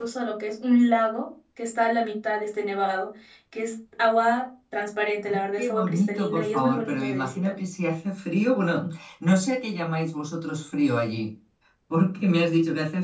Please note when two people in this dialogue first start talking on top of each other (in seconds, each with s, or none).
5.3 s